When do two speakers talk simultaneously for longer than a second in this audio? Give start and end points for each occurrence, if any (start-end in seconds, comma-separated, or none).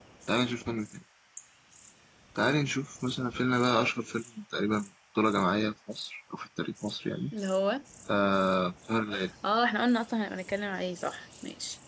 none